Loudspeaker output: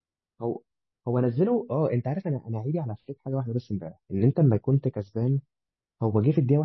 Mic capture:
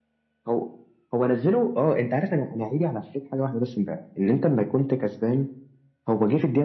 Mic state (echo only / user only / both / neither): echo only